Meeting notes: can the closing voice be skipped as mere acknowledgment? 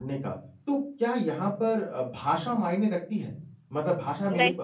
Yes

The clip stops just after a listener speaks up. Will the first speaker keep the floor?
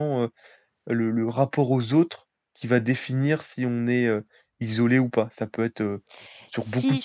No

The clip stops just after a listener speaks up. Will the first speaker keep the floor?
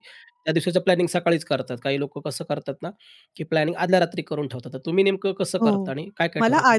No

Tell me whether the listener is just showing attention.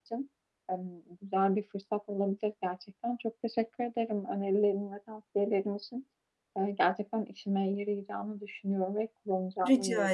No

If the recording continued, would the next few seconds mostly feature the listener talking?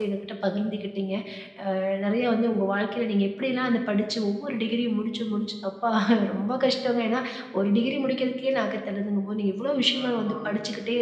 No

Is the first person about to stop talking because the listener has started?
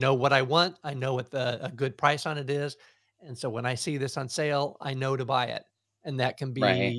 No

